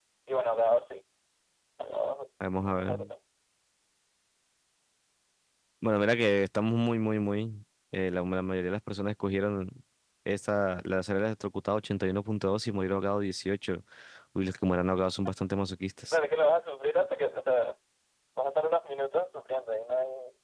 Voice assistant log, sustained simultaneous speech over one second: none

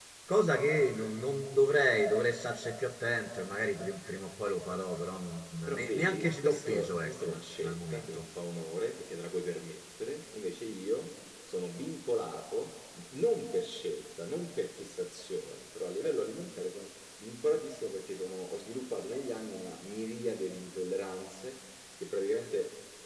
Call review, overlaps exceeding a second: present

